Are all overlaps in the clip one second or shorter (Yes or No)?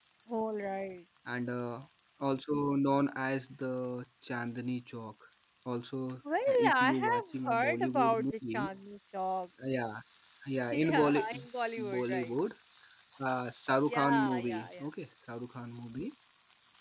No